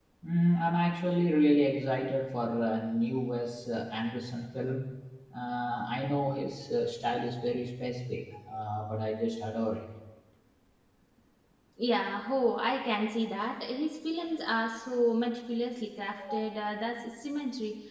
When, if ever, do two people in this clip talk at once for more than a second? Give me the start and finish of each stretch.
none

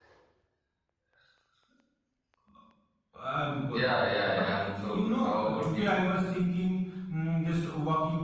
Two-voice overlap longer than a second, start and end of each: 3.7-6.0

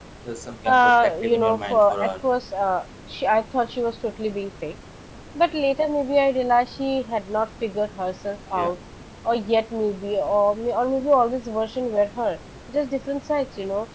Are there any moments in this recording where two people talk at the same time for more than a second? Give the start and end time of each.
0.7-2.1

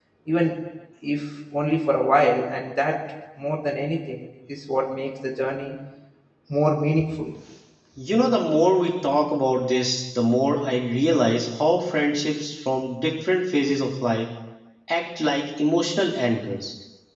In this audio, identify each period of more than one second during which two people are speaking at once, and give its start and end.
none

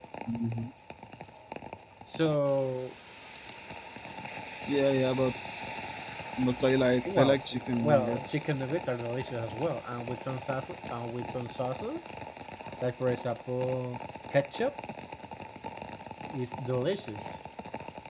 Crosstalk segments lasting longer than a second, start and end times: 7.0-8.4

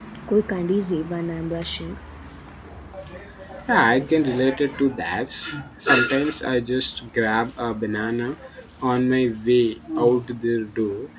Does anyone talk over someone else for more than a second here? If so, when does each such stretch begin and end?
none

